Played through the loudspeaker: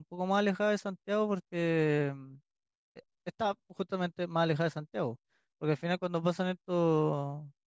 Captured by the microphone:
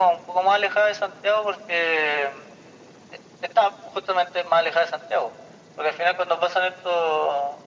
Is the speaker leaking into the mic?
Yes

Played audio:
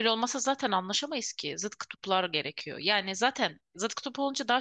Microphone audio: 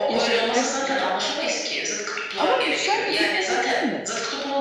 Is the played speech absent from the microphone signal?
No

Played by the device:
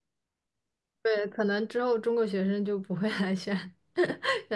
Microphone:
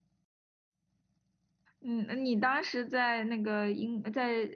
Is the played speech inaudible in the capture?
Yes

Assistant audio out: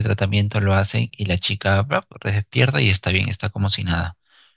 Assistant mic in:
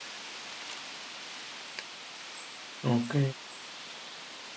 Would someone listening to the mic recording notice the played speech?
No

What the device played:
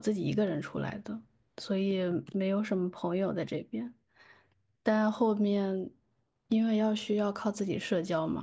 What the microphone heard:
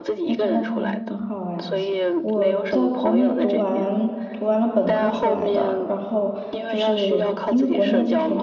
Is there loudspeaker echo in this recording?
Yes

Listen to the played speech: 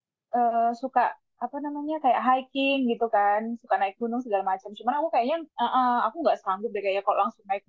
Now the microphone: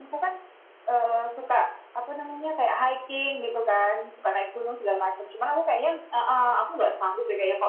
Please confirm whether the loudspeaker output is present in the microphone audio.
Yes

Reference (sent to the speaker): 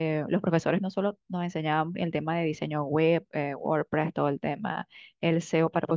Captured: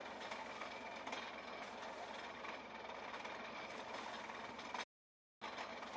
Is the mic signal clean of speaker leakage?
Yes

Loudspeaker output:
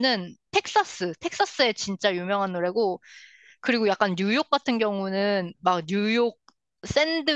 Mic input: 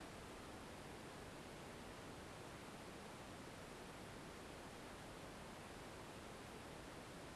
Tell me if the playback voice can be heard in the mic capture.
No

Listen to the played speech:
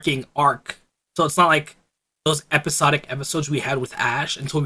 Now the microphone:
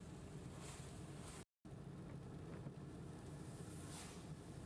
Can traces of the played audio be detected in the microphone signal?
No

